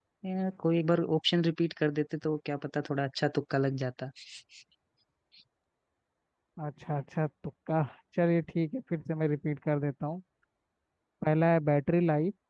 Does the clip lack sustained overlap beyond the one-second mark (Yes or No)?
Yes